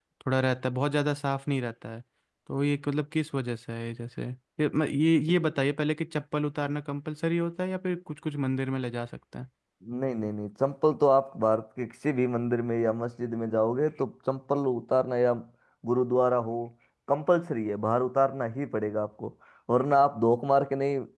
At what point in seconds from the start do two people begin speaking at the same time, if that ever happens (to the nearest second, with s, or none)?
none